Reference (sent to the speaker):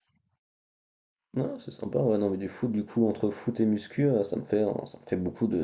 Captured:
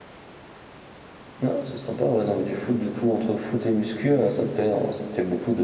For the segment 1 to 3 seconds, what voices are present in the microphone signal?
echo only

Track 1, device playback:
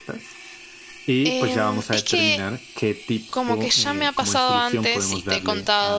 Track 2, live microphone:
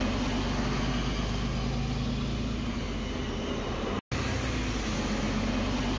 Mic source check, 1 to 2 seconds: neither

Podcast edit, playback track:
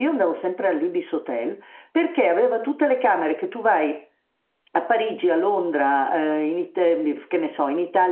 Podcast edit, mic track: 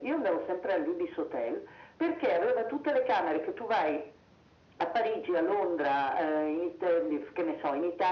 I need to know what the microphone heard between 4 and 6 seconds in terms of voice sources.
echo only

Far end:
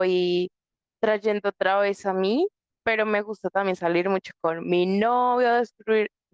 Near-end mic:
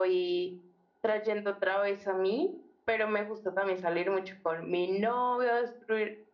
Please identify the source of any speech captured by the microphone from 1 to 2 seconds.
echo only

